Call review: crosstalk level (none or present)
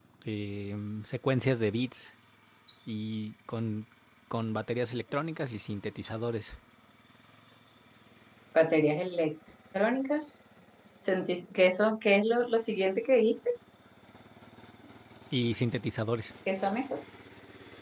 none